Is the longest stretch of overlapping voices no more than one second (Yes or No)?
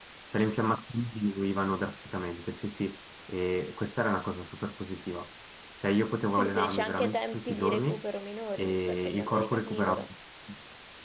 No